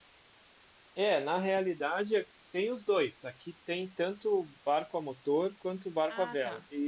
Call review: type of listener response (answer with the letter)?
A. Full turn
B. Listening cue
B